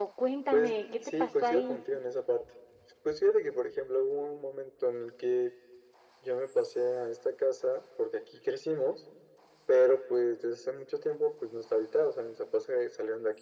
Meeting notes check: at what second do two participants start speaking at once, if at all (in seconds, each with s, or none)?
0.5 s